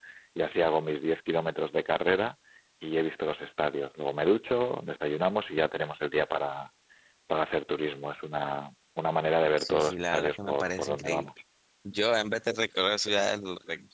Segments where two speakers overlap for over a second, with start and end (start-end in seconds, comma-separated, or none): 9.6-11.3